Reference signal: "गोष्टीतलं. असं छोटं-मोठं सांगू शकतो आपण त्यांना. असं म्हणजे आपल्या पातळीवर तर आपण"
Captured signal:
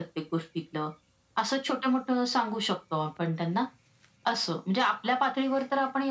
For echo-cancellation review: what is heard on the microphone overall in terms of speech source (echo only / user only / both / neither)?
echo only